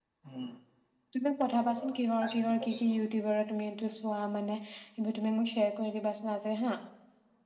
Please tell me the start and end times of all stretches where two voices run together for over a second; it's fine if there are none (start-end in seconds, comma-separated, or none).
1.6-2.9